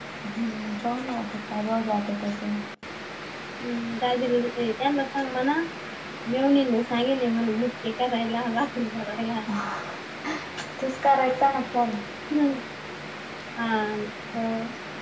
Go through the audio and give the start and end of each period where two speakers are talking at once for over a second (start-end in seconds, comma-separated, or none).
none